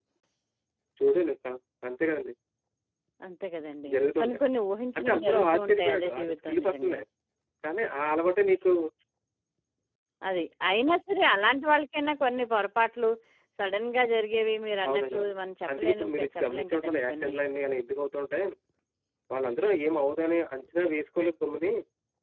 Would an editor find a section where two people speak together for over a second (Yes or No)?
Yes